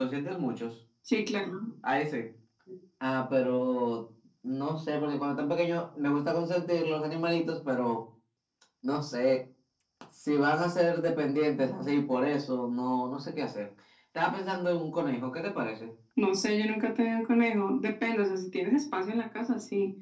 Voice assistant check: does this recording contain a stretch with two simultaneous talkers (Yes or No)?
No